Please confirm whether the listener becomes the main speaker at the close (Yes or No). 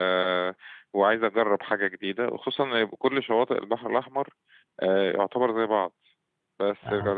No